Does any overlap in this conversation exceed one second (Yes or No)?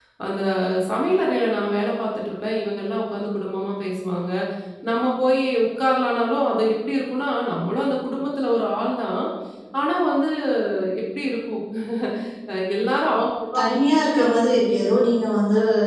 No